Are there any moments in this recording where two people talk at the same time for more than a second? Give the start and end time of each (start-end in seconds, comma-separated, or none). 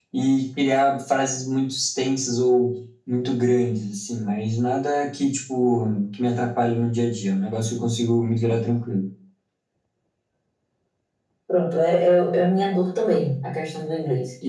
none